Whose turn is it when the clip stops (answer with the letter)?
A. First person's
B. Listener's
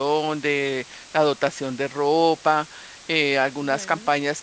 A